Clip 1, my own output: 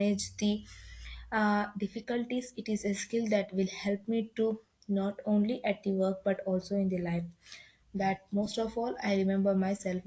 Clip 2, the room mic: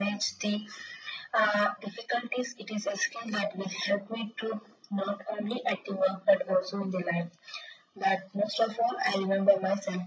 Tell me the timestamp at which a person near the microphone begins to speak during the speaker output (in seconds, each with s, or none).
none